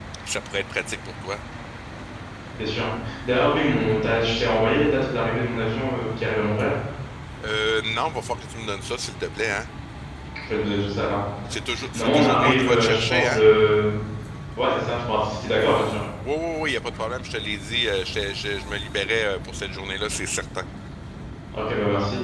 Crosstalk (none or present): present